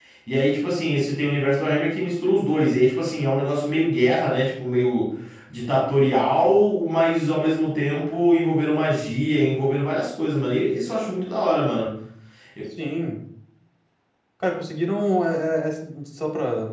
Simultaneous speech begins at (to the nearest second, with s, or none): none